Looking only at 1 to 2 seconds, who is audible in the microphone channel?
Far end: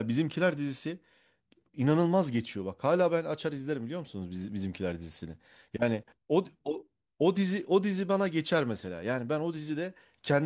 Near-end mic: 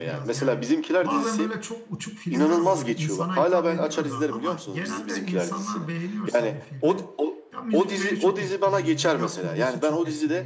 both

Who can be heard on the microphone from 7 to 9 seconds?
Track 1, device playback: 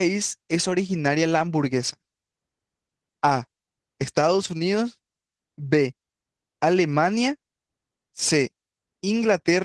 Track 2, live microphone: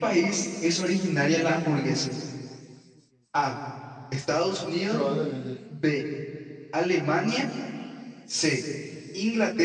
echo only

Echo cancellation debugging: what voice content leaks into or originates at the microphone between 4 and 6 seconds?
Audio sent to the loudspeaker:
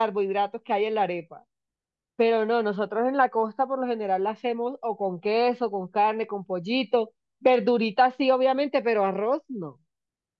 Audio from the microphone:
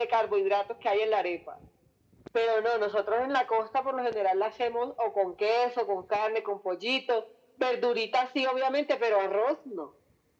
echo only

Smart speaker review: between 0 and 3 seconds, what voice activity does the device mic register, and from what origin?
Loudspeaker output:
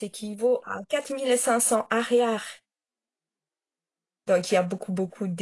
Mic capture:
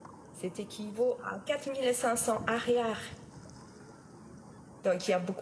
echo only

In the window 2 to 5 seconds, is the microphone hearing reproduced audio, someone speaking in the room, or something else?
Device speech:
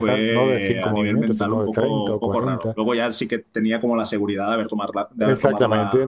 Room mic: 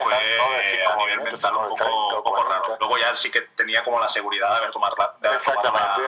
echo only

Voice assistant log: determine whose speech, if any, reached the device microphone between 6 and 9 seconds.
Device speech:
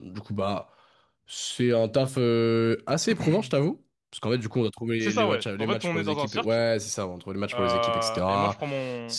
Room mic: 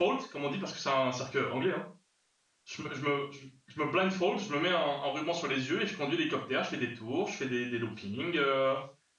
user only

